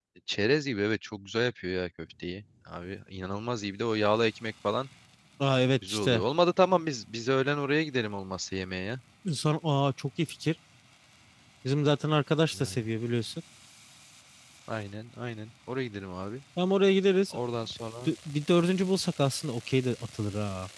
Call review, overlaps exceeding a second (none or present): none